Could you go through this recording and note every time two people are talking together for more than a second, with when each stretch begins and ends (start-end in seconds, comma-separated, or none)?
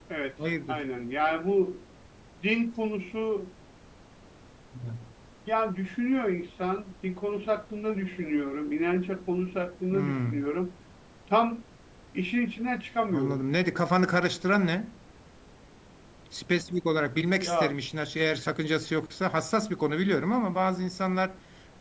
none